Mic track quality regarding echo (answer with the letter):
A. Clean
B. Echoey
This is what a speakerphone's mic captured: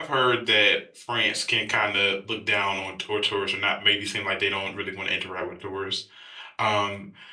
A